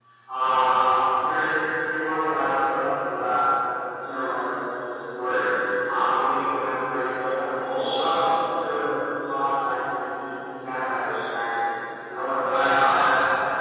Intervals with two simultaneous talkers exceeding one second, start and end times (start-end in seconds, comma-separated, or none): none